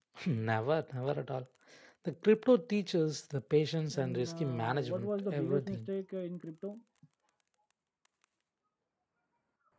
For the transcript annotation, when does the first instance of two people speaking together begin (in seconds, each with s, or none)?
3.9 s